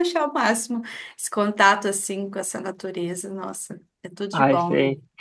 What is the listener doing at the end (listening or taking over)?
taking over